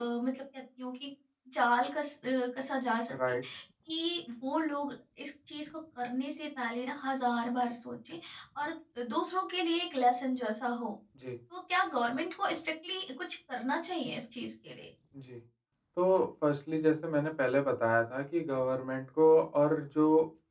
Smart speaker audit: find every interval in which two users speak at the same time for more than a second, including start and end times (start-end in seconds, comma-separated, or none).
none